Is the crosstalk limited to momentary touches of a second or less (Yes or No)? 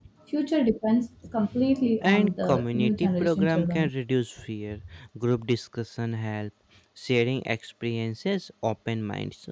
No